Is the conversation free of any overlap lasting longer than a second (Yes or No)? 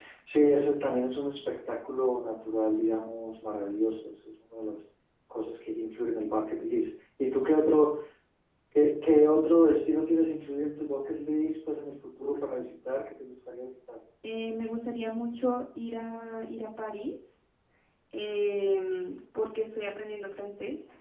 Yes